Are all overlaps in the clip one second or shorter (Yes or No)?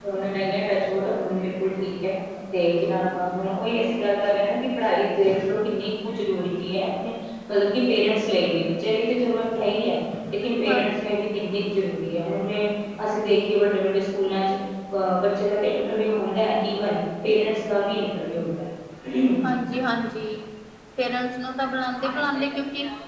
Yes